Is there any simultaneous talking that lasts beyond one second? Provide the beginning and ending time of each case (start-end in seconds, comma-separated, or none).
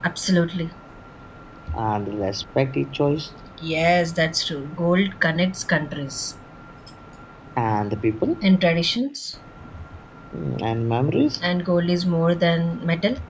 none